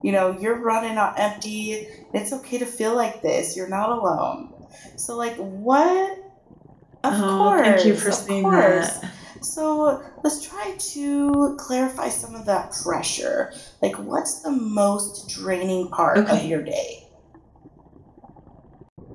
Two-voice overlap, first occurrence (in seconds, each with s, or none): 7.1 s